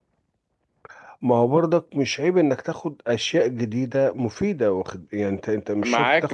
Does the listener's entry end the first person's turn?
Yes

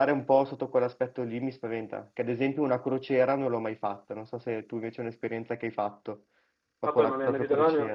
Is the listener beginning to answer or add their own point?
Yes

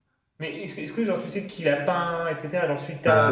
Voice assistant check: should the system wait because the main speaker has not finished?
No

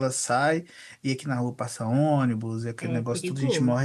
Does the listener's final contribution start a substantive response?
No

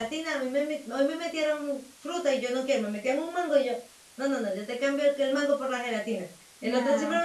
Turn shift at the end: No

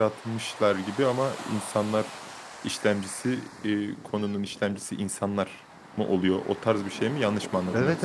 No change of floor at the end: No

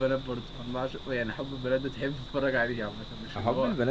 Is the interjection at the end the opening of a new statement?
Yes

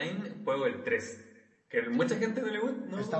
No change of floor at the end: No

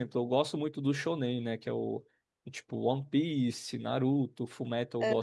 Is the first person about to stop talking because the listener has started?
No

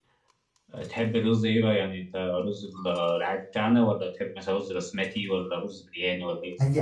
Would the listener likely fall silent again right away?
No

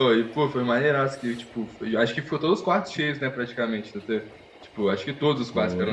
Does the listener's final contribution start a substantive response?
Yes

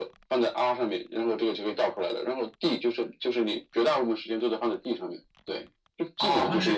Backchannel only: No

